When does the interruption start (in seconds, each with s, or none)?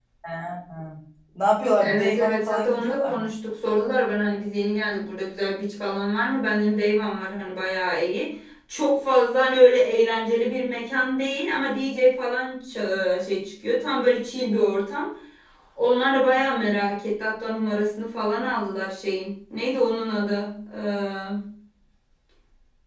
1.8 s